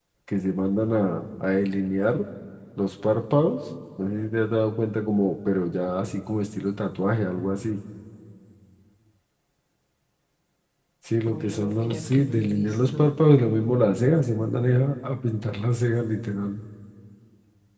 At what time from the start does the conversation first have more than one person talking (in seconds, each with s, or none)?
11.3 s